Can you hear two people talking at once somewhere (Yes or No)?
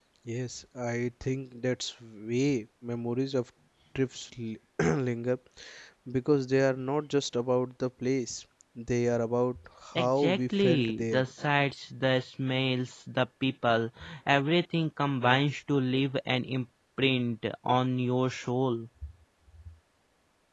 Yes